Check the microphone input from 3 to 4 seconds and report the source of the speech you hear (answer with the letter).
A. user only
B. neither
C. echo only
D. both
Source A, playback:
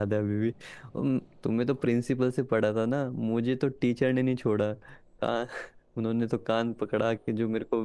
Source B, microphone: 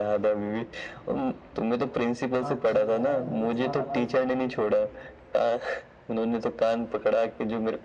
D